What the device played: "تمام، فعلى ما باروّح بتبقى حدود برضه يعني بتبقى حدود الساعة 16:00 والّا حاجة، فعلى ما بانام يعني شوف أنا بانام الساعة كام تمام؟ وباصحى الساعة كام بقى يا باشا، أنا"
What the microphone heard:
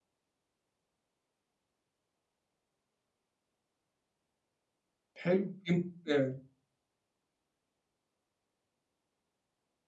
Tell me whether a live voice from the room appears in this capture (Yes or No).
Yes